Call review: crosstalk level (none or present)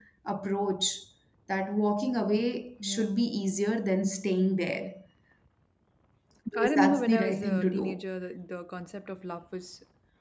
present